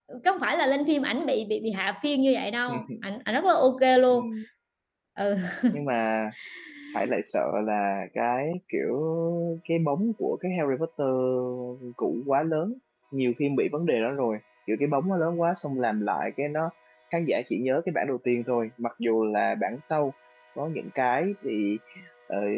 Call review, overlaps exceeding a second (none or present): none